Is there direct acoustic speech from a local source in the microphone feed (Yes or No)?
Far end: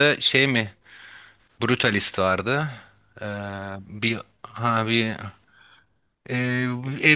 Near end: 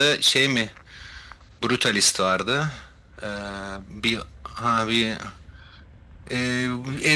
No